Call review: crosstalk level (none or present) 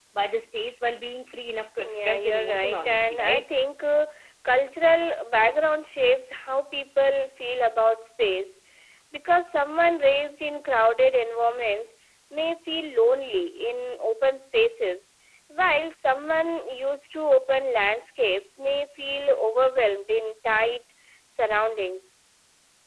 present